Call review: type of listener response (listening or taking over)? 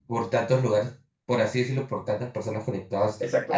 taking over